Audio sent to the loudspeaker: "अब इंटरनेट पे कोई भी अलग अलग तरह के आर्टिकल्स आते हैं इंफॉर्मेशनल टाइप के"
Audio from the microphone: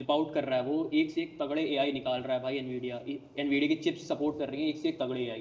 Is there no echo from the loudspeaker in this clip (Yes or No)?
Yes